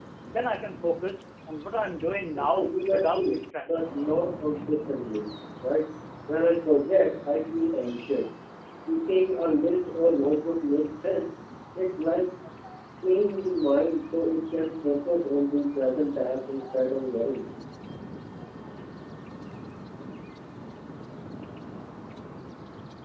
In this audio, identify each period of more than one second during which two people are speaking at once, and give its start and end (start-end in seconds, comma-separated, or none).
2.4-4.0